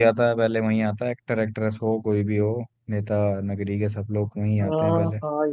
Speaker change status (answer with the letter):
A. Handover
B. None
A